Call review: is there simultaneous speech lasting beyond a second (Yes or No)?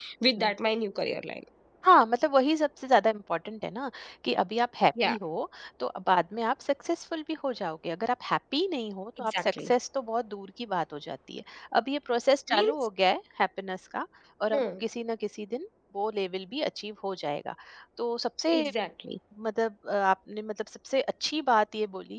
No